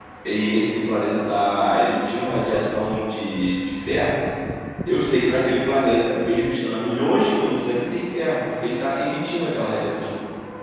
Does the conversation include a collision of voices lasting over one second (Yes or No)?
No